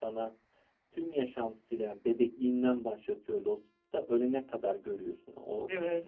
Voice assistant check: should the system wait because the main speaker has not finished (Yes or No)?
Yes